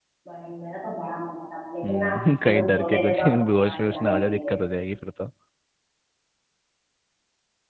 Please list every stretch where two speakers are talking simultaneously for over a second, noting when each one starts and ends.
1.8-4.5

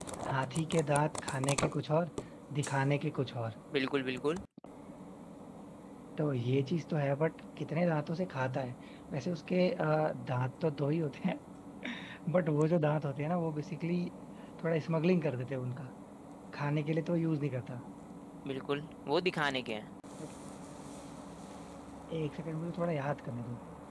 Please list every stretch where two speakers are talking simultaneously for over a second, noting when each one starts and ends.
none

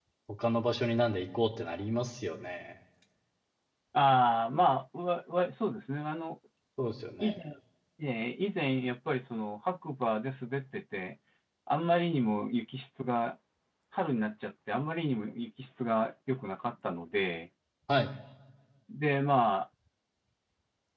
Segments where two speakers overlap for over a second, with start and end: none

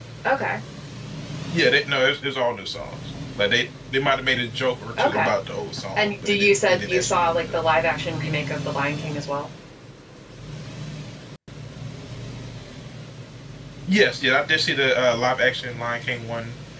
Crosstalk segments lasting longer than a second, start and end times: 6.0-7.7

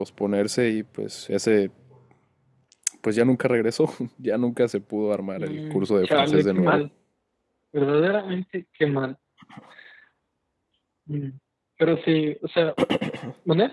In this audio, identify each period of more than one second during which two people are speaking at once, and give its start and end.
5.4-6.8

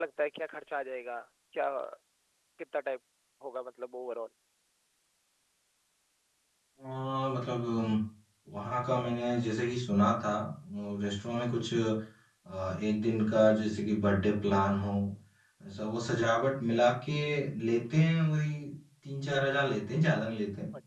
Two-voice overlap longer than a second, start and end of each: none

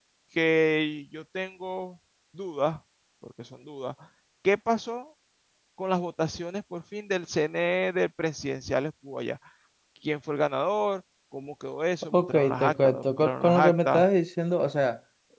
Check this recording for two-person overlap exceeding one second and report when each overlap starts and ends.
12.1-14.0

